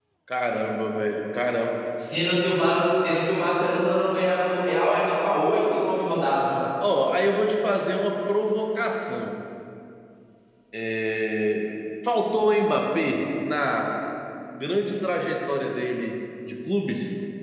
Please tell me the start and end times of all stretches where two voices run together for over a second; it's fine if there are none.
none

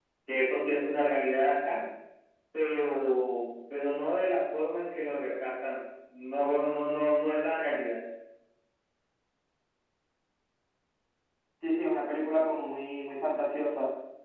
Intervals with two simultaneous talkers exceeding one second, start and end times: none

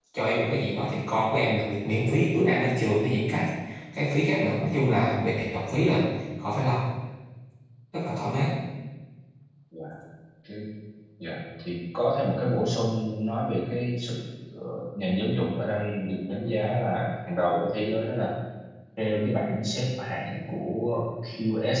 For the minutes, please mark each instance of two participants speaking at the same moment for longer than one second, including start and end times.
none

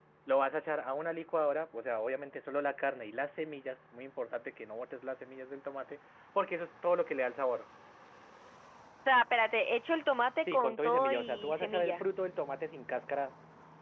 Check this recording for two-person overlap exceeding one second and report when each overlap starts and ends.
10.5-12.0

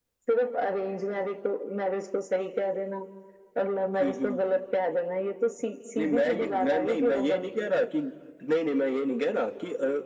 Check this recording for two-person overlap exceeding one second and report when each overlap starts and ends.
6.0-7.5

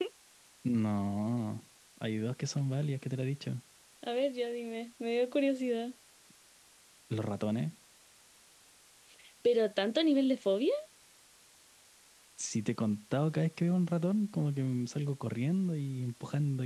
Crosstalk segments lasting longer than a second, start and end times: none

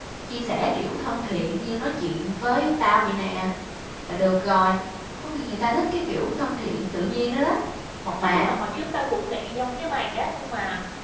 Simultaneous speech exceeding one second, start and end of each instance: none

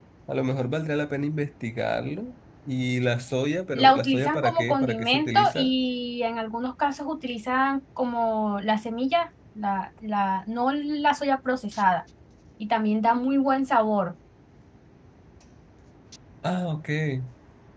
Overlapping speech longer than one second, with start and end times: 3.8-5.7

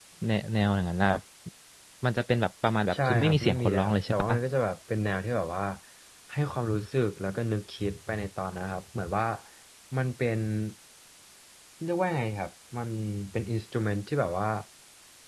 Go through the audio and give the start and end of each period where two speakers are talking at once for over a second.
3.0-4.3

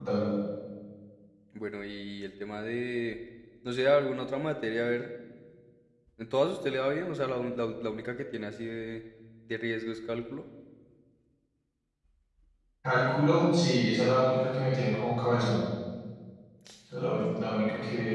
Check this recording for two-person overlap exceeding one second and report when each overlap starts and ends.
none

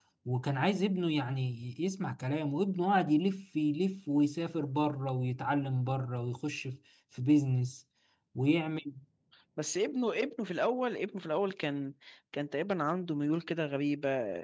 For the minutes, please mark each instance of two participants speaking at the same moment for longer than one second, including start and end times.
none

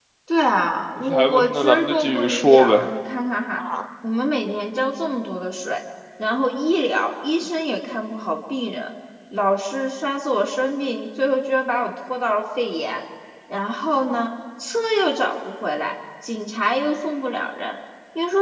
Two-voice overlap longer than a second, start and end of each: 1.1-2.8

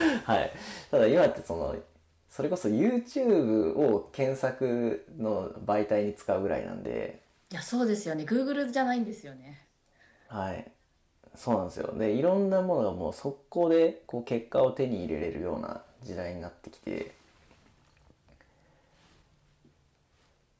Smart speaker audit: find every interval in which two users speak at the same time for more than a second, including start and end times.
none

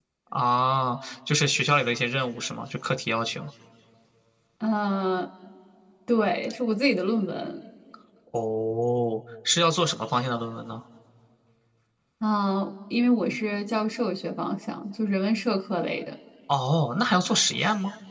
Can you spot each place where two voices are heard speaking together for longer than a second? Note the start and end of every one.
none

